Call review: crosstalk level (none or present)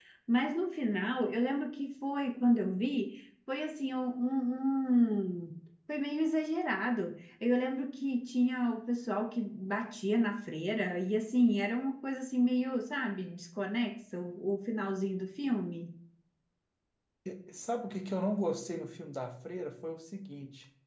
none